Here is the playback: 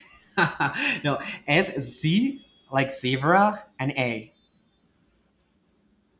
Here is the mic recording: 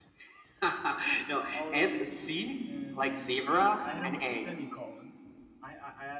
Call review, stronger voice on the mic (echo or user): echo